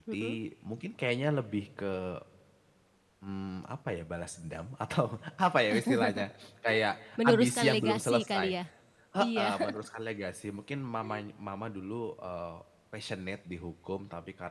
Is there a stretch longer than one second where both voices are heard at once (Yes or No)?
Yes